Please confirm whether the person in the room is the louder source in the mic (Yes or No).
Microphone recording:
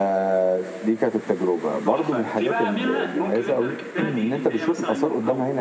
No